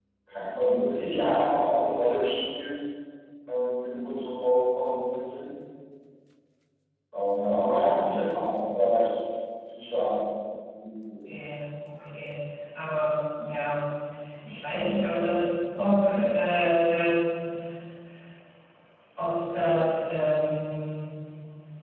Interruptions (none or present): none